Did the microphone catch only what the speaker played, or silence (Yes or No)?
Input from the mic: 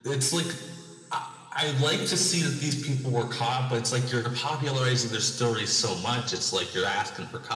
Yes